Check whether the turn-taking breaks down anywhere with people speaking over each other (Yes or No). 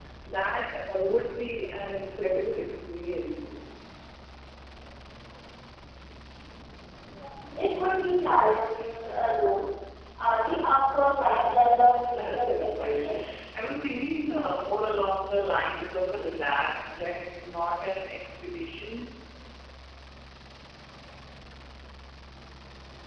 Yes